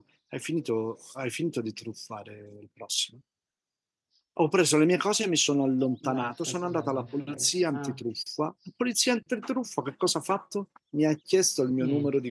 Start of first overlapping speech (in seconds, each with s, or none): 6.1 s